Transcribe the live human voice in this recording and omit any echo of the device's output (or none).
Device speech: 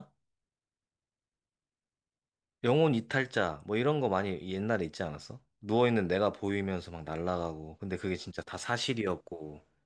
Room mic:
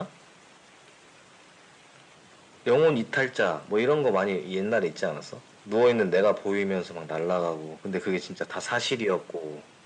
none